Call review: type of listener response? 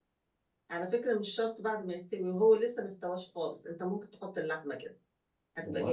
listening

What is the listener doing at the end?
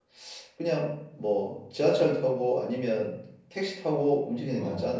taking over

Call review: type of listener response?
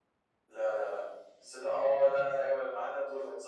taking over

